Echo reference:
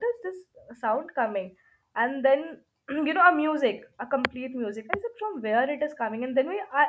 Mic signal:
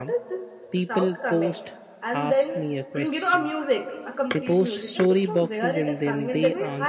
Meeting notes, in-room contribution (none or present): present